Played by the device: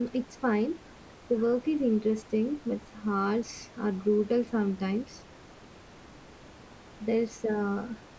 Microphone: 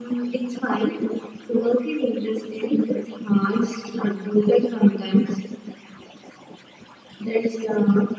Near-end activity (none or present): none